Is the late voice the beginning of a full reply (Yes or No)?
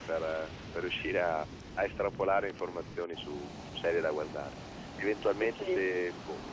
No